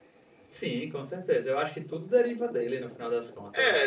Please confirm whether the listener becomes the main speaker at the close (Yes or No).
Yes